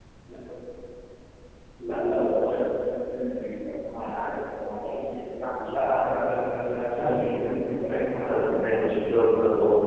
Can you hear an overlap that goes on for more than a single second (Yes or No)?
Yes